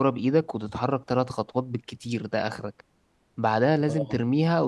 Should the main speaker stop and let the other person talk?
No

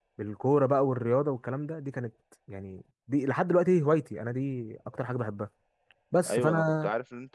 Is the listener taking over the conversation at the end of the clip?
Yes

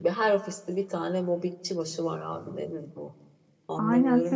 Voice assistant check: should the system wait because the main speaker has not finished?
No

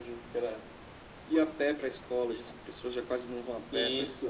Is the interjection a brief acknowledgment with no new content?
No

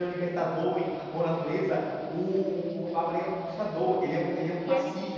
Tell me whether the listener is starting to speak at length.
Yes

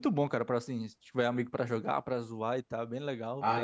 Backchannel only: No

